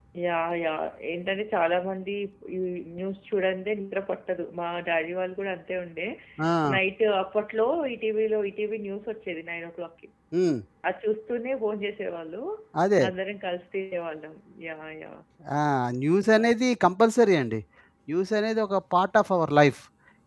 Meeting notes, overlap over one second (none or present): none